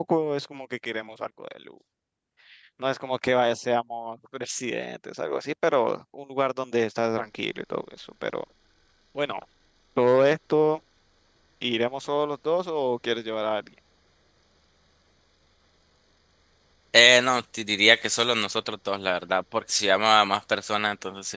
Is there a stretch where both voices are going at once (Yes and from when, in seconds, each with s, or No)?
No